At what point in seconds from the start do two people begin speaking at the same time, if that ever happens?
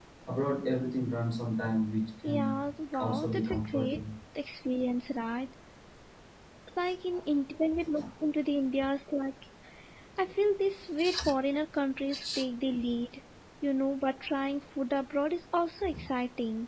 2.2 s

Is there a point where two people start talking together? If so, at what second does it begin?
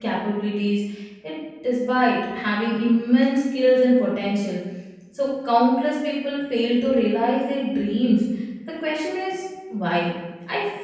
none

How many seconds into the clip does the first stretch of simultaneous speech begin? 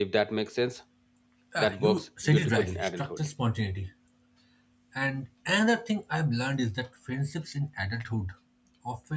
1.6 s

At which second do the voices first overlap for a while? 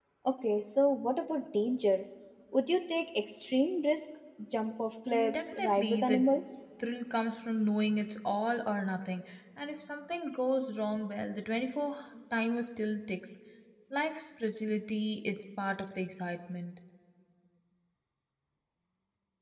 5.1 s

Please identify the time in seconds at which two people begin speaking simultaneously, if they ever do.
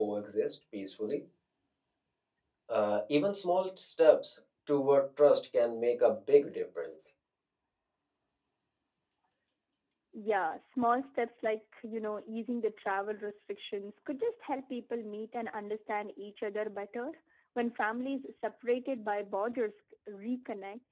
none

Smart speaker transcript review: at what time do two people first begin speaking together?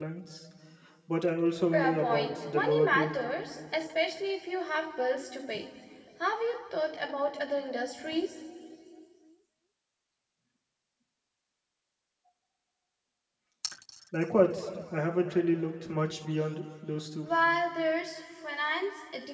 1.7 s

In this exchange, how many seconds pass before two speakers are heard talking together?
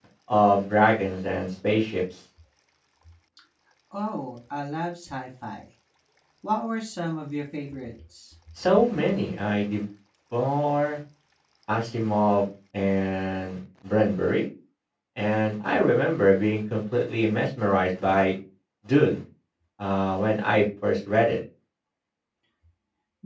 none

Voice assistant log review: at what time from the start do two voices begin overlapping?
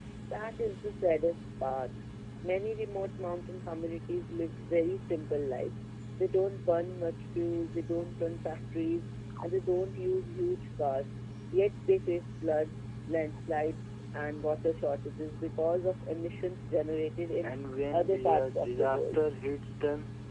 17.9 s

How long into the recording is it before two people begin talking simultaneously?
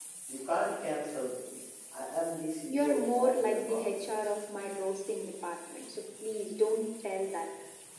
2.7 s

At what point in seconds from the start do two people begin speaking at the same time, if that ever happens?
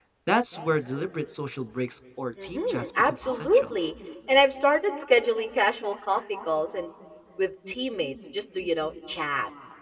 2.4 s

